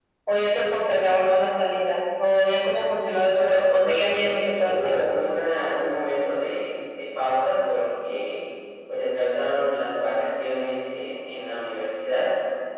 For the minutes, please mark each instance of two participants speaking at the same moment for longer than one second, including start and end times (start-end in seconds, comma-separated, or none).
3.0-5.1